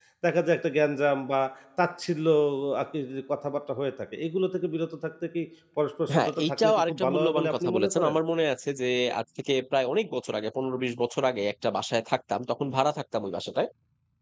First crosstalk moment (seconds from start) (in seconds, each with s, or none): 6.1 s